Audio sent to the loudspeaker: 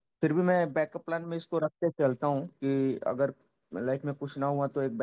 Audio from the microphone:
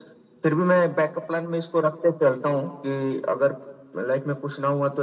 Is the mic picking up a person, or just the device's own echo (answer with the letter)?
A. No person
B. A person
A